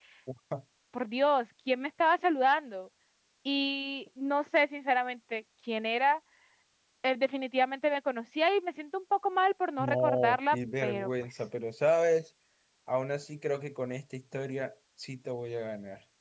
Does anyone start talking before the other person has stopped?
Yes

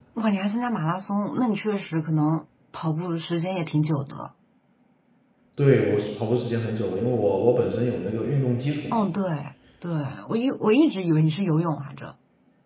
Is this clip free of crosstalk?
Yes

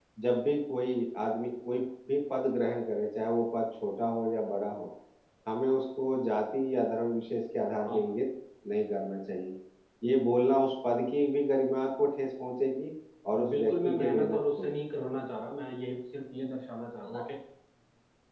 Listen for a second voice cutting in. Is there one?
Yes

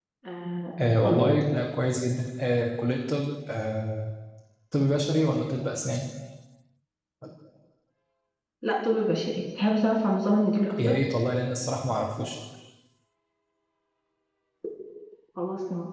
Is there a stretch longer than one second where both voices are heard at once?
No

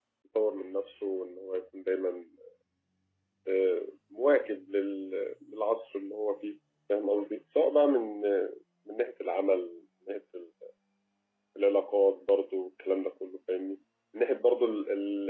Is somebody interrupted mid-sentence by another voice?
No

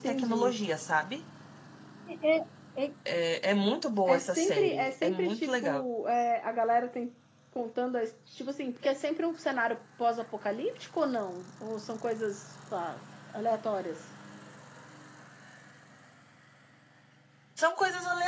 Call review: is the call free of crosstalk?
No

